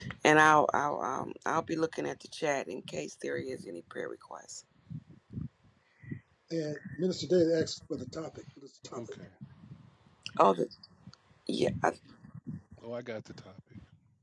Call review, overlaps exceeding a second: none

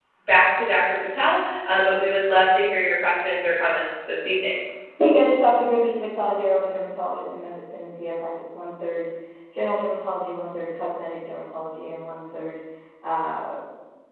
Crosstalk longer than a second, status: none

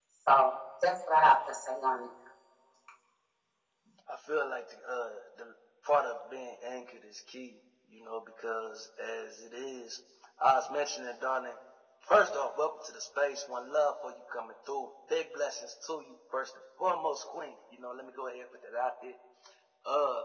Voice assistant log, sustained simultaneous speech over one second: none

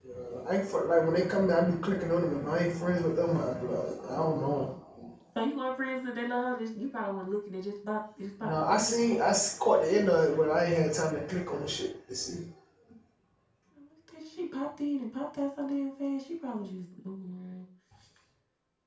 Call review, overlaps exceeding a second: none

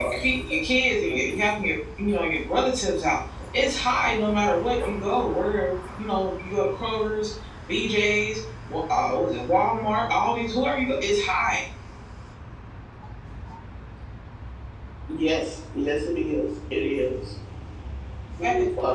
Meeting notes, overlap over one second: none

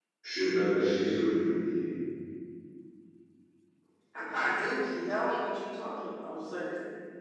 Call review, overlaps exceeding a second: none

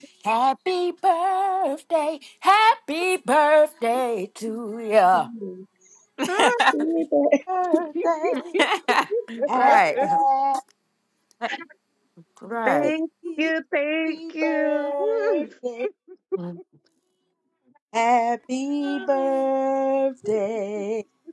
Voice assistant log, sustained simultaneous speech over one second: present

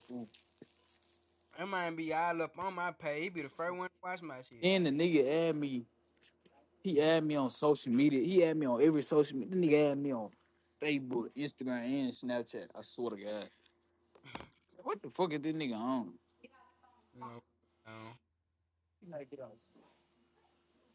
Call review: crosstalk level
none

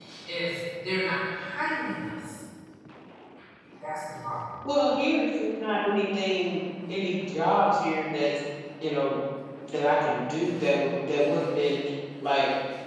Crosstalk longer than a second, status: none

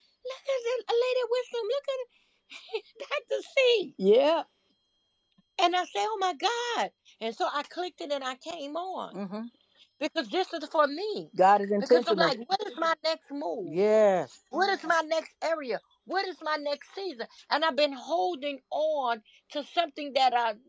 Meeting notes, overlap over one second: none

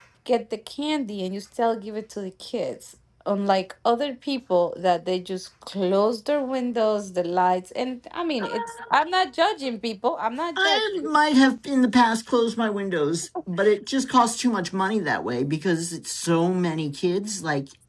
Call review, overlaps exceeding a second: none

